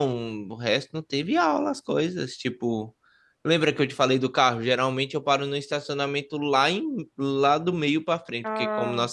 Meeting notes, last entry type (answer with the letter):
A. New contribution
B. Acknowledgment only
B